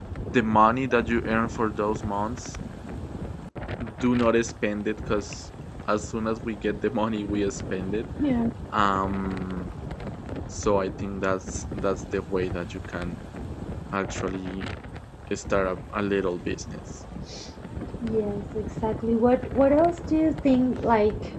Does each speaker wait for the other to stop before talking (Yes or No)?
Yes